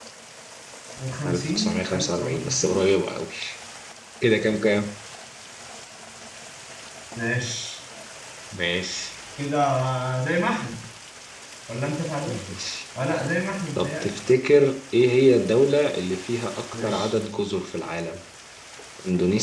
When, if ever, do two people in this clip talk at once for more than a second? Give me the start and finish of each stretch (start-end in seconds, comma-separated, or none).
1.2-2.8